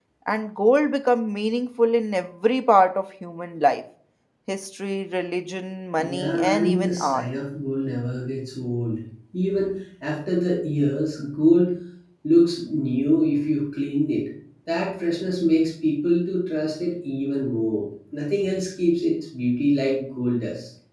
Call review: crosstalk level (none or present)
present